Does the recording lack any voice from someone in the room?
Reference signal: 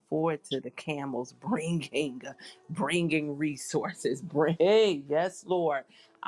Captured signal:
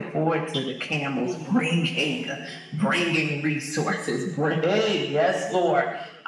No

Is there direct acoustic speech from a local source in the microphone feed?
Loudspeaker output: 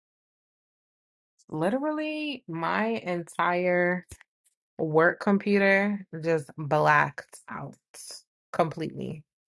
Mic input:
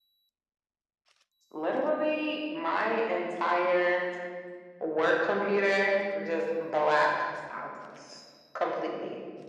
No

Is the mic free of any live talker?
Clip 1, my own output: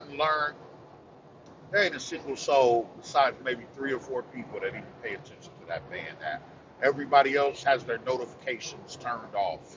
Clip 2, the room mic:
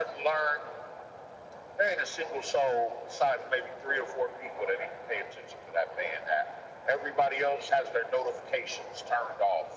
Yes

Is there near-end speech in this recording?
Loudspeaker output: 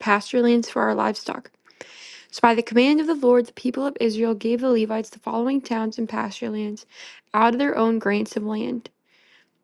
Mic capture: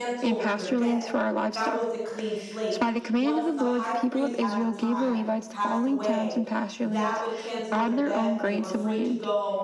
Yes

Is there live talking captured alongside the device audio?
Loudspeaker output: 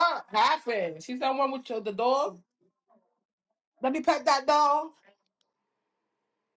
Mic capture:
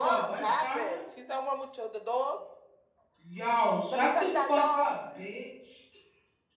Yes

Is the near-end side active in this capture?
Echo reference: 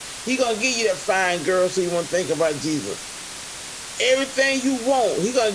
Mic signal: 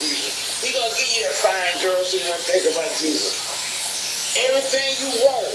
No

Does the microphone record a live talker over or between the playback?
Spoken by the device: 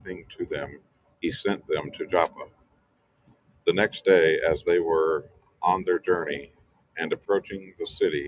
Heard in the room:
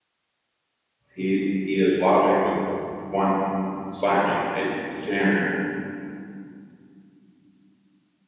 Yes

